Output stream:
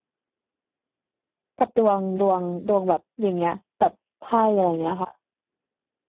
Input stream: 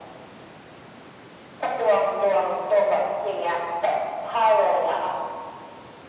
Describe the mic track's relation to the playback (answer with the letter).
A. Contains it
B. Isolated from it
A